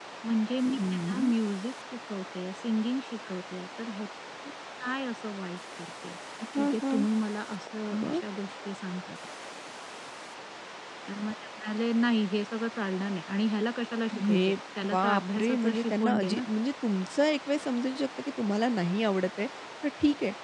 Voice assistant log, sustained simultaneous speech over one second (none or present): present